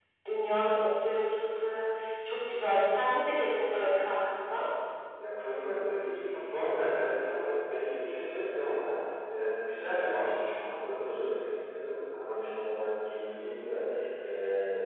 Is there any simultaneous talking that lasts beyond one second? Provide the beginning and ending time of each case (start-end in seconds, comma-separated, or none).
none